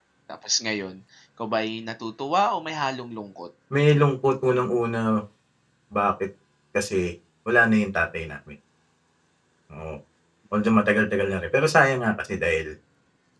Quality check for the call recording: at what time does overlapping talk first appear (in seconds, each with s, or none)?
none